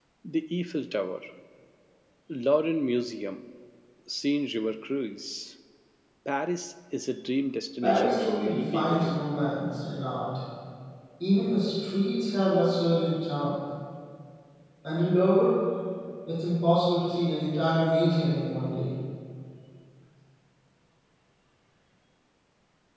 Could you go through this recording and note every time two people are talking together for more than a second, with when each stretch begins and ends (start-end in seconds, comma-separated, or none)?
7.8-9.3